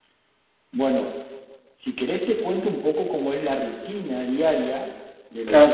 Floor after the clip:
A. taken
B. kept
A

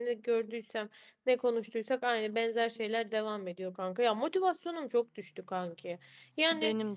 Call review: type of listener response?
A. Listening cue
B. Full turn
A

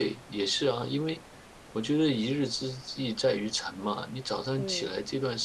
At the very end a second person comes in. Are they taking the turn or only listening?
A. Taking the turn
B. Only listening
B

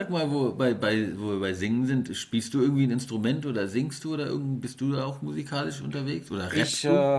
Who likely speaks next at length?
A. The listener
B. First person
A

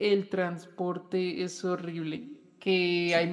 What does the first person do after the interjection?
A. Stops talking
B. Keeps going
B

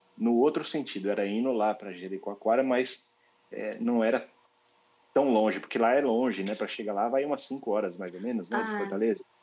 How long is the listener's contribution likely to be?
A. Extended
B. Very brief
A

